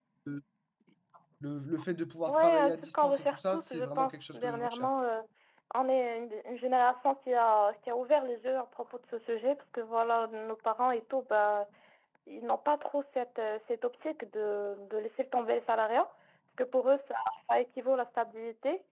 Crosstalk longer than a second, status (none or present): present